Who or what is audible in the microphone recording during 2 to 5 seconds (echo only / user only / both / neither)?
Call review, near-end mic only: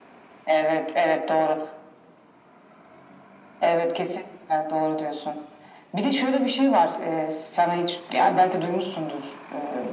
echo only